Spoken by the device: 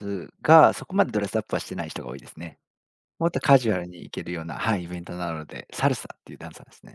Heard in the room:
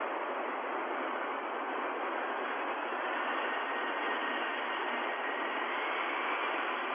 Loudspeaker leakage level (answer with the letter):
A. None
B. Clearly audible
A